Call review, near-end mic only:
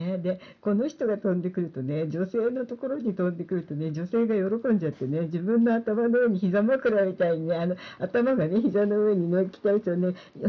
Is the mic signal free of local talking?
Yes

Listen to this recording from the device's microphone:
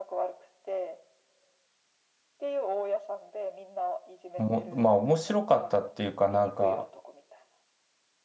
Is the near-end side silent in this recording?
No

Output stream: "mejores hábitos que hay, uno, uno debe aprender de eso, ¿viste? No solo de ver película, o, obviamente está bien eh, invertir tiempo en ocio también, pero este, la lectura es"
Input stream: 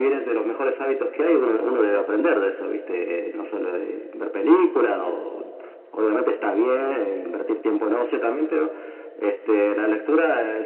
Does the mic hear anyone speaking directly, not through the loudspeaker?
No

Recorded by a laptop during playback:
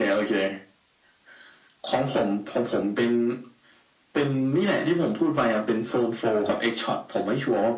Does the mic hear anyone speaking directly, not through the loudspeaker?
No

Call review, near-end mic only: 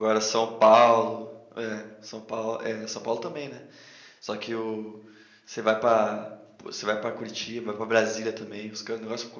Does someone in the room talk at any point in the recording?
Yes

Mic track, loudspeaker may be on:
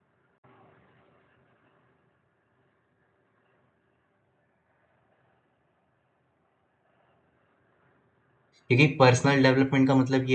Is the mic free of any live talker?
No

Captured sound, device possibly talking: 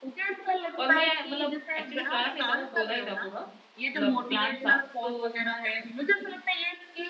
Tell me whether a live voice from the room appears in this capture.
Yes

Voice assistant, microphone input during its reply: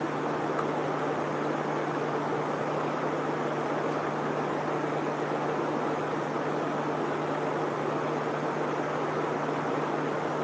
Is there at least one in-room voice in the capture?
No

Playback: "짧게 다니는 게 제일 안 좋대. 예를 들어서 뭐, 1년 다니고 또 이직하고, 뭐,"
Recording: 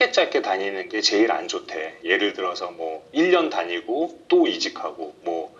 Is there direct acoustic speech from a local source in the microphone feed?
No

